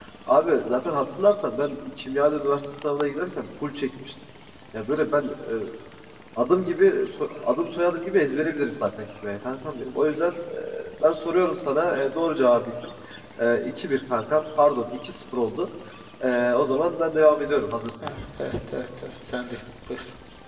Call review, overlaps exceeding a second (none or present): none